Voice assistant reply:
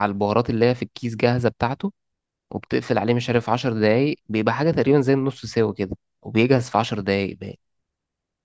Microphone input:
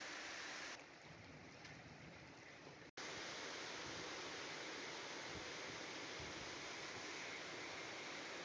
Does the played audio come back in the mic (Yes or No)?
No